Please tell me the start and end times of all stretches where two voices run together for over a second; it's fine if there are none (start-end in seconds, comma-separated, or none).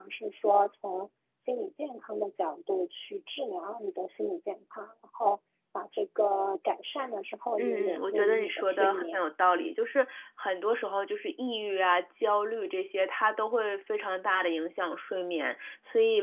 7.6-9.2